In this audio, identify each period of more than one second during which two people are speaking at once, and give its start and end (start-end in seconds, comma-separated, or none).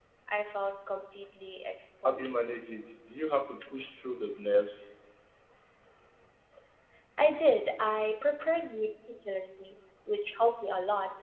none